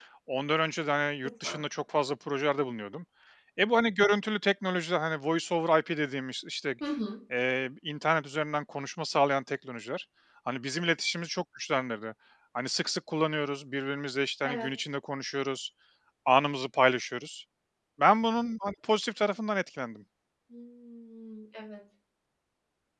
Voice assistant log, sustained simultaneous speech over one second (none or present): none